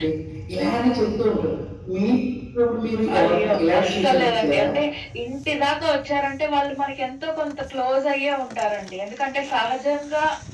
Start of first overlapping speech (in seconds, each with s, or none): 3.1 s